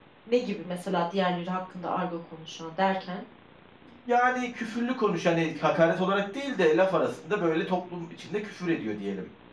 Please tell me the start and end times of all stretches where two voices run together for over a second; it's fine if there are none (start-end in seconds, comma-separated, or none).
none